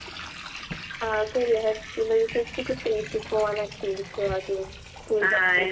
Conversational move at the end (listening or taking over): taking over